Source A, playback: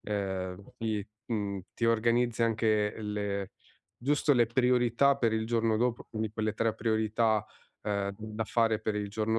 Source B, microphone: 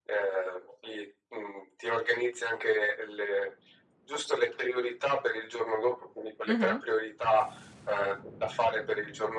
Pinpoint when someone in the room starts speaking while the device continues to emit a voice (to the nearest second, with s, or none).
6 s